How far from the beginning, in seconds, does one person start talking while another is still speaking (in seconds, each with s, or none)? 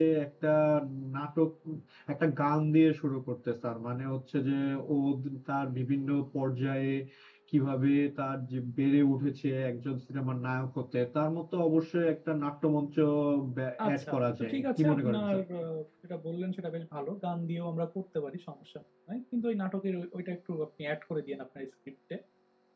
13.9 s